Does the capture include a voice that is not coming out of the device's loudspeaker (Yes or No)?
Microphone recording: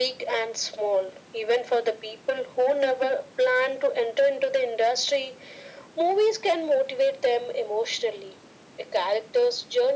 No